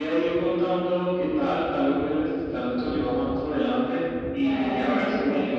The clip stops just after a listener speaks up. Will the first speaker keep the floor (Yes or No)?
Yes